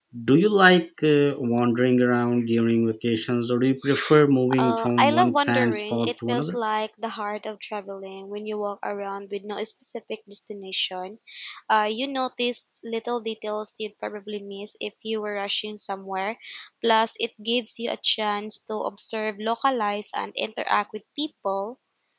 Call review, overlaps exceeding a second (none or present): present